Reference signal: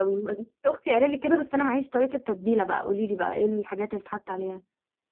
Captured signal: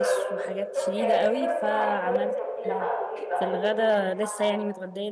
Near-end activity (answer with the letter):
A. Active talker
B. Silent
A